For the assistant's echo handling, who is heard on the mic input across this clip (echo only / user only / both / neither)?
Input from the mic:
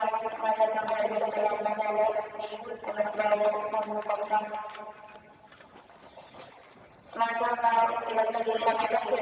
echo only